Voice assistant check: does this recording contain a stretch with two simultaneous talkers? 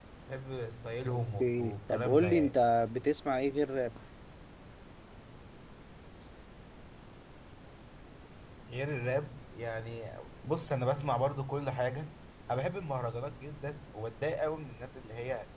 Yes, from 1.2 s

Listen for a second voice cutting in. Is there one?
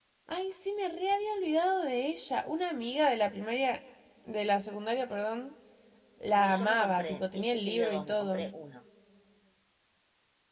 Yes, from 6.4 s

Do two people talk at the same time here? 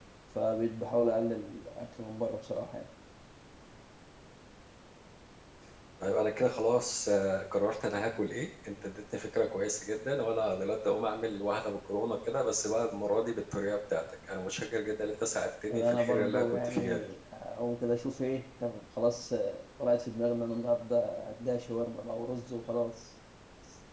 Yes, from 15.7 s

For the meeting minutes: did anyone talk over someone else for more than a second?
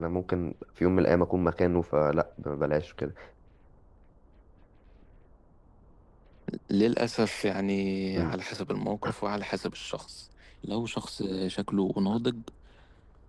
No

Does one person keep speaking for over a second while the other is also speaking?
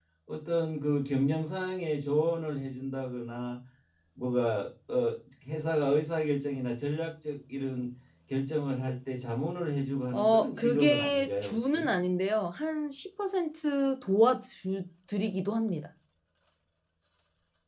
Yes, from 10.1 s

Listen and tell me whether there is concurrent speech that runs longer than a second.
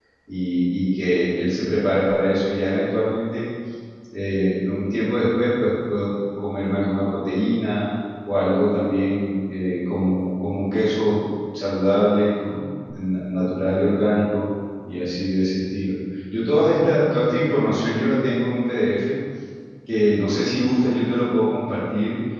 No

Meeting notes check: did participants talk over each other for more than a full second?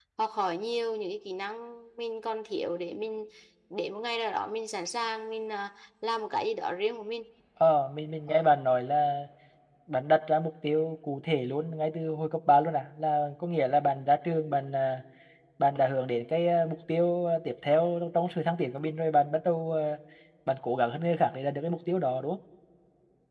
No

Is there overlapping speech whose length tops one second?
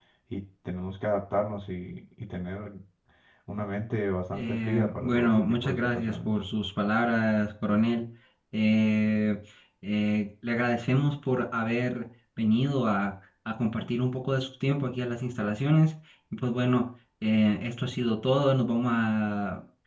Yes, from 4.3 s

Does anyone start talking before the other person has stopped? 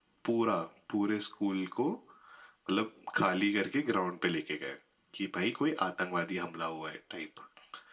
No

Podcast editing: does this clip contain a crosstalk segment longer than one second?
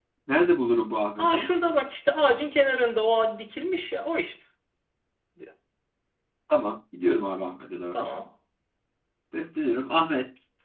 No

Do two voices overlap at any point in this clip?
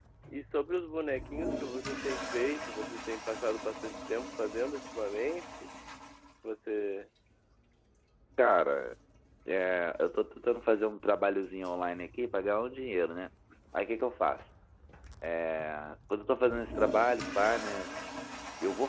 No

